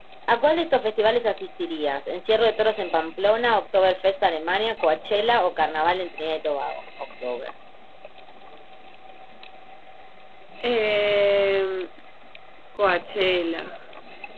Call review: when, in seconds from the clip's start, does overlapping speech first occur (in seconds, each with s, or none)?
none